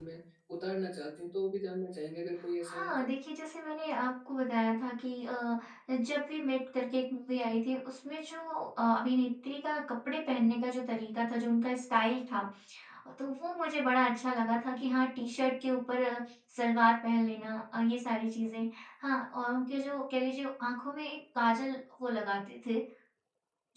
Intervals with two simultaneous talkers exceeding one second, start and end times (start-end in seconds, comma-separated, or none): none